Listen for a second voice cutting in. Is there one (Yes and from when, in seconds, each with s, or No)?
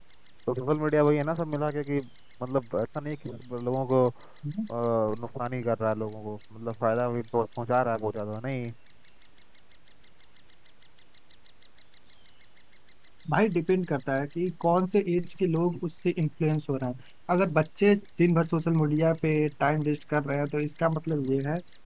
No